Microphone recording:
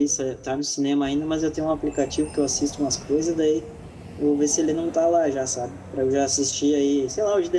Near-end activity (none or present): present